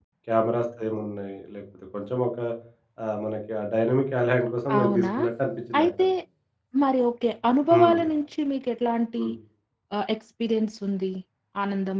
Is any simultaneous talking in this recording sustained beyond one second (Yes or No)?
No